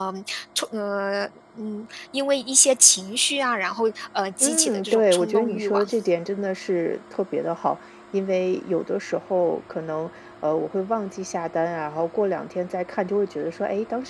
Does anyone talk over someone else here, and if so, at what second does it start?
4.4 s

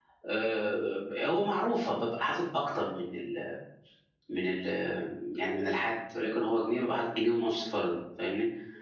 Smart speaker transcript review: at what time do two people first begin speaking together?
none

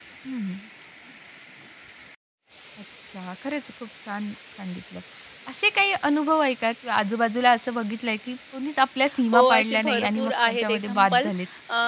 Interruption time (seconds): 9.3 s

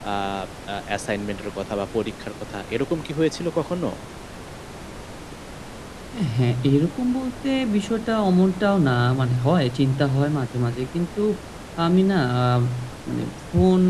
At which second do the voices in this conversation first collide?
none

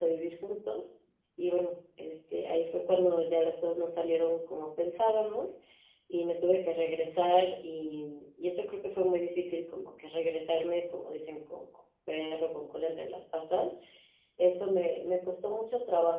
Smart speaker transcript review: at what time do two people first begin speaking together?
none

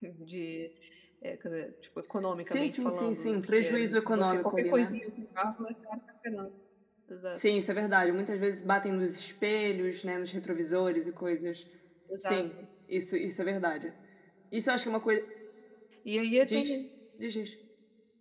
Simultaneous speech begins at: 2.5 s

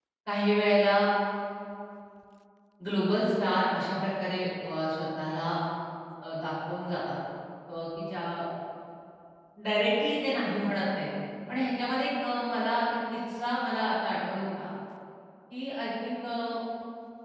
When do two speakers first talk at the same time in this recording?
none

